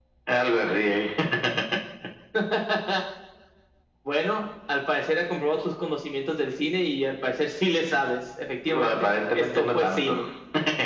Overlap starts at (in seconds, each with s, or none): 8.9 s